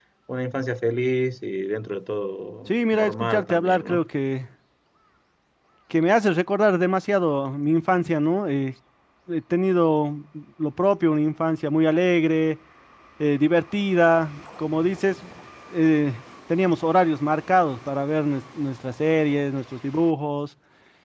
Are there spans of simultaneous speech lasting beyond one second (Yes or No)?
Yes